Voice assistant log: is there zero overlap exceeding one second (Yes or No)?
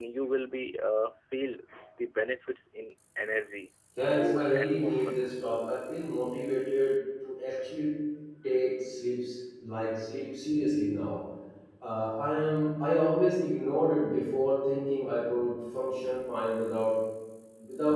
No